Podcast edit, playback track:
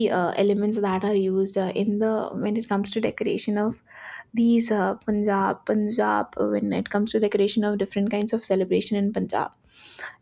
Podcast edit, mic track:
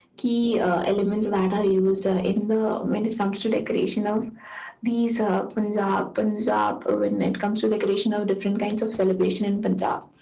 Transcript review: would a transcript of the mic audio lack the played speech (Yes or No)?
No